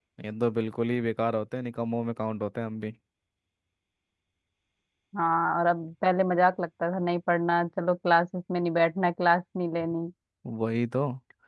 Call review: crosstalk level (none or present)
none